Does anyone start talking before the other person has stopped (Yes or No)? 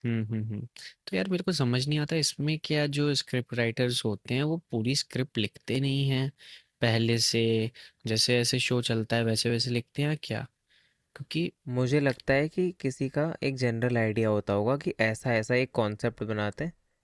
No